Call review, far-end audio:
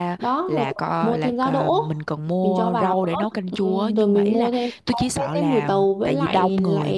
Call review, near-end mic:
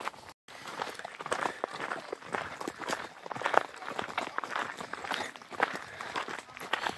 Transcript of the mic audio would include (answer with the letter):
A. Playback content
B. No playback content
B